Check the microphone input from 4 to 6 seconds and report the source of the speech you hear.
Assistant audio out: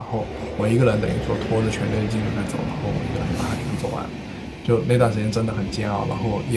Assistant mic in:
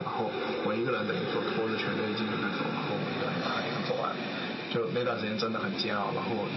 echo only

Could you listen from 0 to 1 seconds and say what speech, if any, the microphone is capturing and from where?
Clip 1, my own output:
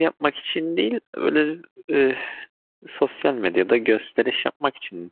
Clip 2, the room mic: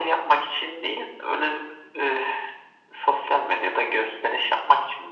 echo only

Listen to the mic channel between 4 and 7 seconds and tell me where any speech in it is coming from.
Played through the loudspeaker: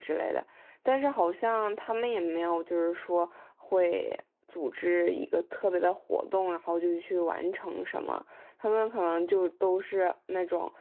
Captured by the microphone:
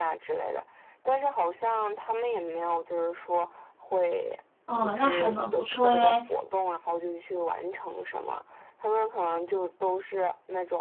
both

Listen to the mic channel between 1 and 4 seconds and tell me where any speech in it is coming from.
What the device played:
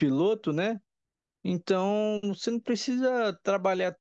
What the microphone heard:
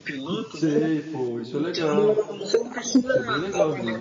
both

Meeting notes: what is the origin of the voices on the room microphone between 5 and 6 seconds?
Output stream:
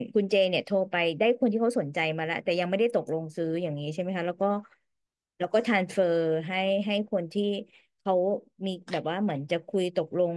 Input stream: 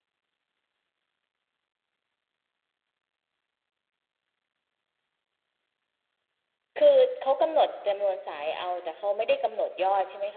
neither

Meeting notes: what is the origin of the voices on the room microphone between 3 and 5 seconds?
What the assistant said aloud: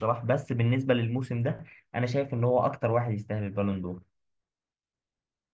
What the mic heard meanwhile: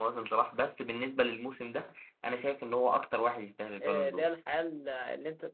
both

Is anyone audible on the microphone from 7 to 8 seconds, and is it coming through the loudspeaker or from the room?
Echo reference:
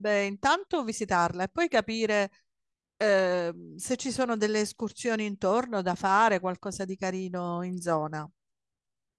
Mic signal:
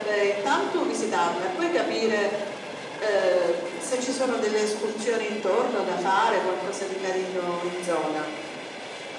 echo only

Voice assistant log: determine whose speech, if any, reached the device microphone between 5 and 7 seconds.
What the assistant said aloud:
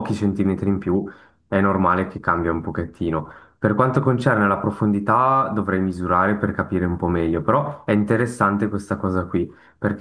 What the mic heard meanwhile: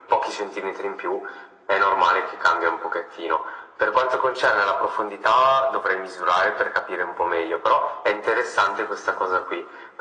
echo only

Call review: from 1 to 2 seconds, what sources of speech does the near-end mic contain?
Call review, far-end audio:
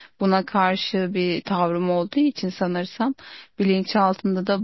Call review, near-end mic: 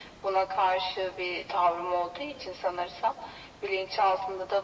echo only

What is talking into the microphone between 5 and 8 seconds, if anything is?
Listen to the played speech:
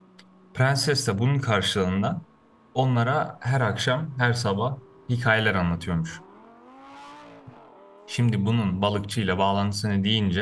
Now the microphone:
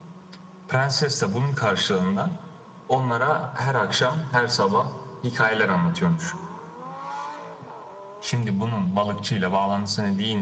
echo only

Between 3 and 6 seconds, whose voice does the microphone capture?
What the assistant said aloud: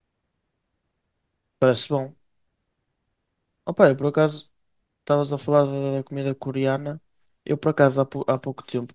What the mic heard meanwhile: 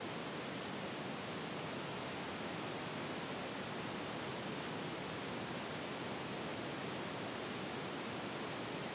neither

